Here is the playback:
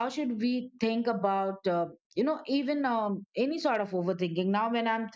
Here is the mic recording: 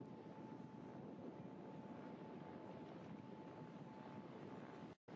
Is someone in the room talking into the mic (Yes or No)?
No